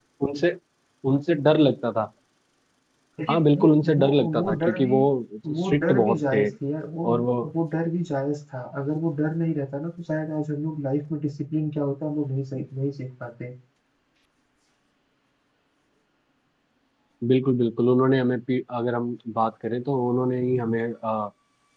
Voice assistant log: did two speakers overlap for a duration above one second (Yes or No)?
Yes